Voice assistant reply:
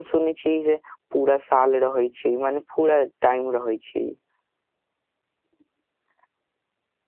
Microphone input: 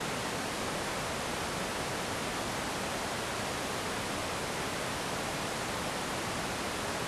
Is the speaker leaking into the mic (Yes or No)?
No